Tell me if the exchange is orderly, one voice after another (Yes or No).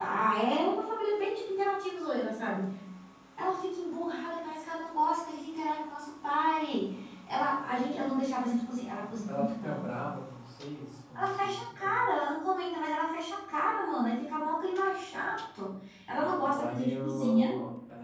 No